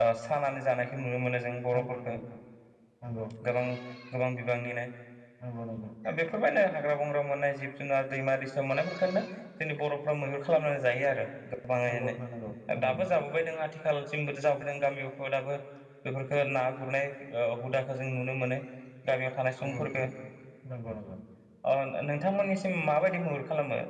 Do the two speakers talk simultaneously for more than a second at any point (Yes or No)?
No